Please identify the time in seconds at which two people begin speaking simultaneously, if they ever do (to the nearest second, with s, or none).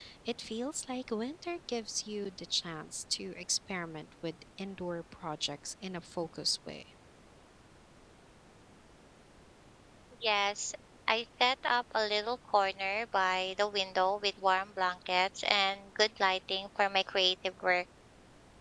none